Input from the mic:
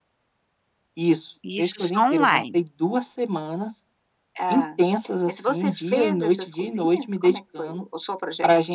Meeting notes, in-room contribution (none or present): present